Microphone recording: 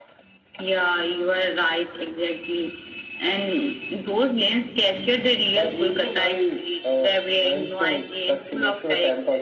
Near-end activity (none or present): none